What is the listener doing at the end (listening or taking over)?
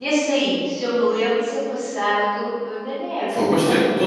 taking over